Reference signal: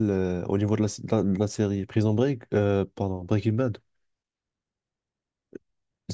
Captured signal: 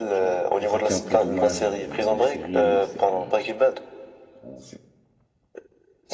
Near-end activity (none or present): present